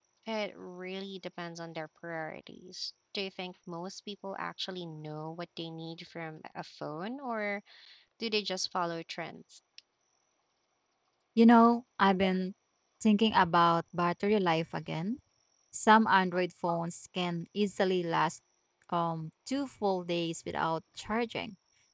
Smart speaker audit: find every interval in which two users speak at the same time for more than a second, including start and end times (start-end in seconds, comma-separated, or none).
none